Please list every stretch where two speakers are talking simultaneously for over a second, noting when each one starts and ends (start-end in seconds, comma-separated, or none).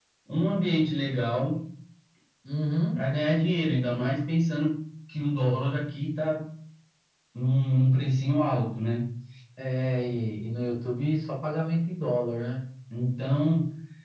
none